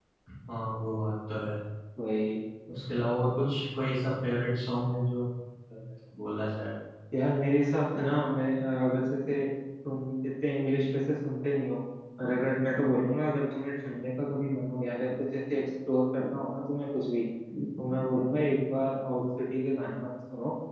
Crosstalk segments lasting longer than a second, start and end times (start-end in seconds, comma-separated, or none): none